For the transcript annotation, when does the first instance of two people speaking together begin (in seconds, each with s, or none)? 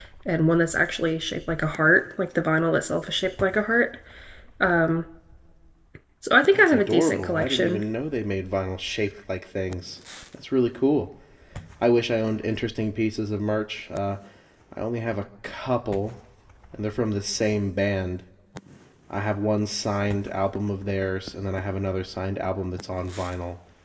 6.5 s